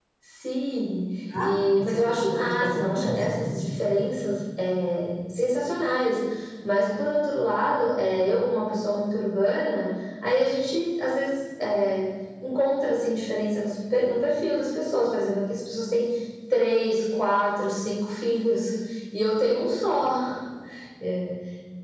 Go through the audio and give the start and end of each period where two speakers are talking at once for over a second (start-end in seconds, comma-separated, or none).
1.4-3.6